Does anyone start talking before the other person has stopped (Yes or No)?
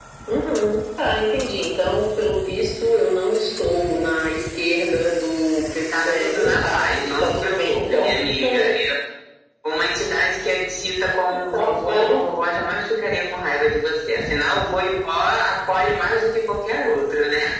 Yes